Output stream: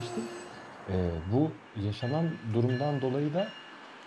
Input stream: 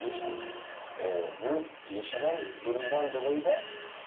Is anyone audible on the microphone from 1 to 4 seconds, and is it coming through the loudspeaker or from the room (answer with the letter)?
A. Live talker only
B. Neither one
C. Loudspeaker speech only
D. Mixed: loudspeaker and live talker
D